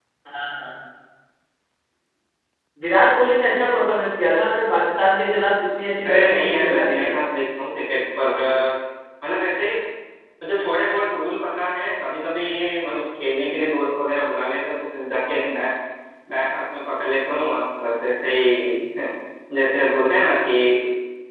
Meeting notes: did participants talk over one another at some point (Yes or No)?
Yes